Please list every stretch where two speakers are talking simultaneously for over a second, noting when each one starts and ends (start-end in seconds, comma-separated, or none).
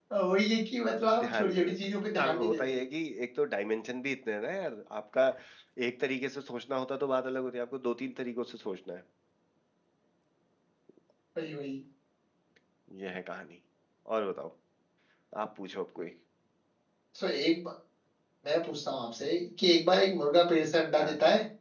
1.2-2.8